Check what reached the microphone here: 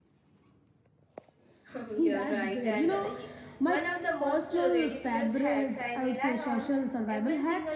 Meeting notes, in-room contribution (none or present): present